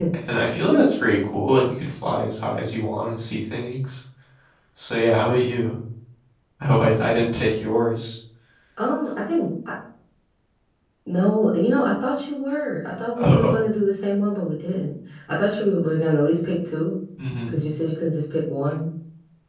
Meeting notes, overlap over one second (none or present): none